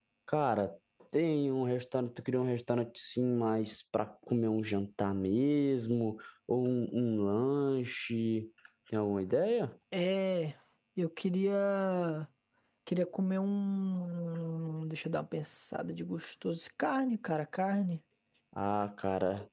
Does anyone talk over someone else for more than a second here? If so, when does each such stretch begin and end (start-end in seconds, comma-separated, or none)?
none